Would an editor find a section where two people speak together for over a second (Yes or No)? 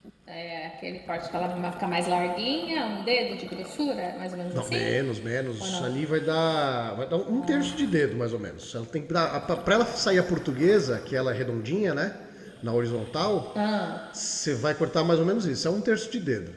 No